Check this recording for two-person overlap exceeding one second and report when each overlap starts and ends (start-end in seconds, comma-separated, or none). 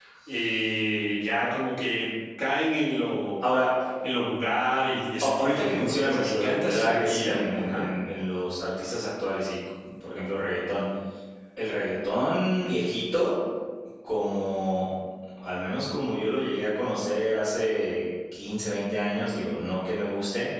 5.2-7.8